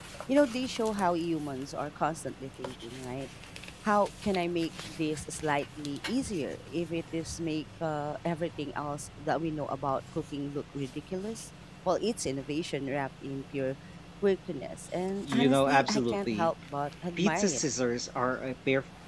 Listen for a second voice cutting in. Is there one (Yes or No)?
Yes